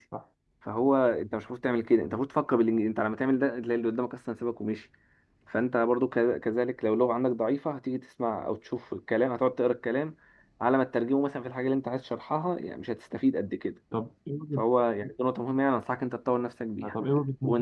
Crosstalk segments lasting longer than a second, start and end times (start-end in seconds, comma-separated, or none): none